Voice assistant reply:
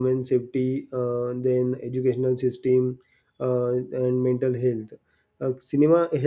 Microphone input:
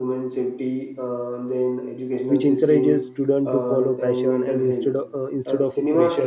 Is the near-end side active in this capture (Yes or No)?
Yes